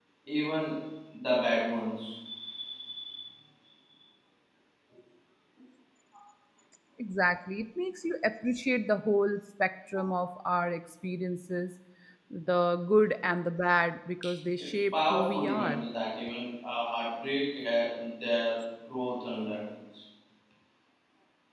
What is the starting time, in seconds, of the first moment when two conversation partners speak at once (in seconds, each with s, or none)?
14.6 s